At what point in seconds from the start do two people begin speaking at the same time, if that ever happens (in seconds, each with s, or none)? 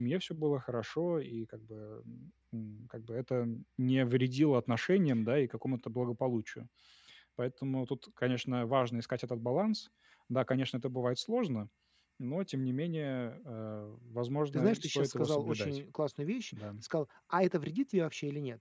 14.5 s